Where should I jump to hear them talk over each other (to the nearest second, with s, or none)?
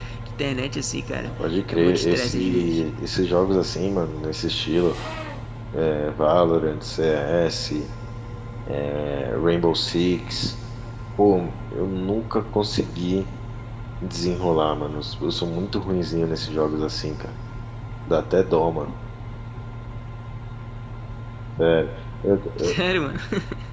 1 s